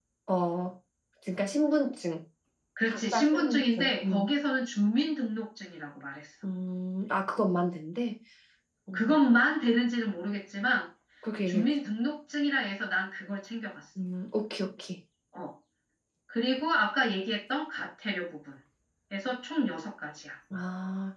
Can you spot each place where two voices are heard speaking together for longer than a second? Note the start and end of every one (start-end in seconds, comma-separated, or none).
2.9-4.3